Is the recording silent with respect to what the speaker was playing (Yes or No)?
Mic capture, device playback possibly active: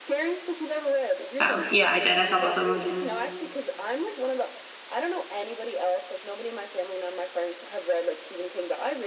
No